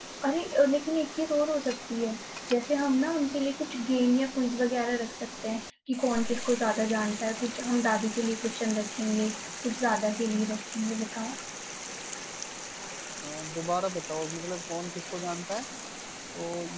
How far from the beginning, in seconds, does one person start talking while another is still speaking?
none

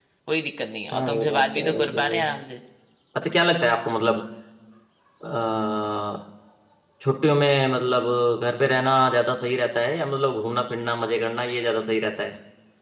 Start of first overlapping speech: 0.9 s

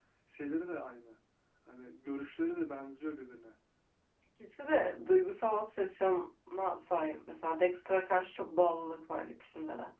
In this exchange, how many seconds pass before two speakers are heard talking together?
none

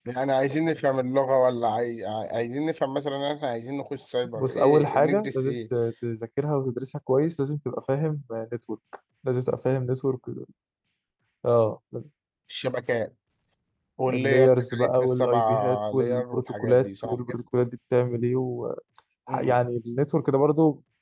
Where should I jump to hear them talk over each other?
4.3 s

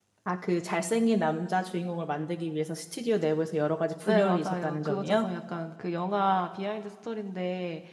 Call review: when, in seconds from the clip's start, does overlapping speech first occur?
4.0 s

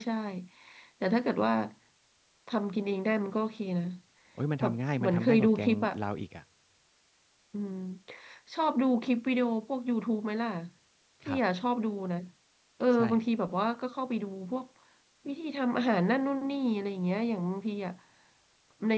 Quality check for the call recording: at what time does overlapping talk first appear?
4.6 s

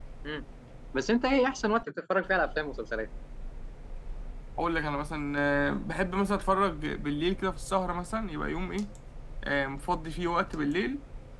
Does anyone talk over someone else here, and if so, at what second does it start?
none

